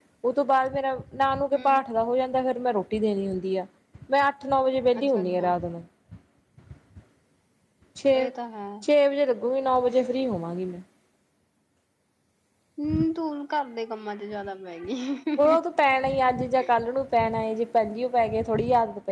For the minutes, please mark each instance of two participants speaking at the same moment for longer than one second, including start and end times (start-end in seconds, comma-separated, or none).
none